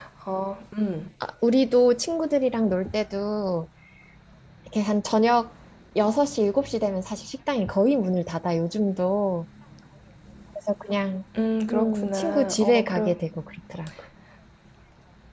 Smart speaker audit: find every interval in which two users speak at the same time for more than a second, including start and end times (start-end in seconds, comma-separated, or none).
11.7-13.2